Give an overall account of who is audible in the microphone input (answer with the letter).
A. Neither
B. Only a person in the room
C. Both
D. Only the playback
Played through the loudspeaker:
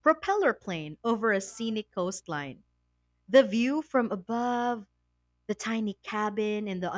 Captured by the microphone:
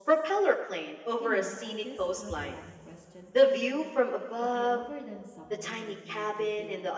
C